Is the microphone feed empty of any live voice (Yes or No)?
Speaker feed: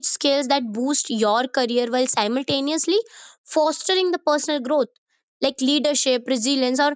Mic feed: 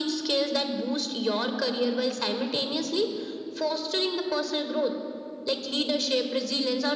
Yes